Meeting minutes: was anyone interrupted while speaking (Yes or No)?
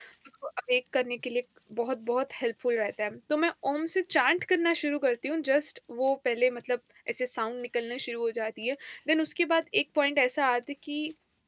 No